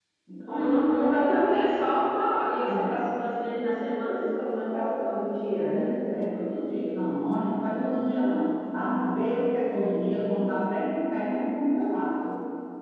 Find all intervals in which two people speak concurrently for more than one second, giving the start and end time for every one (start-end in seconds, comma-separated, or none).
none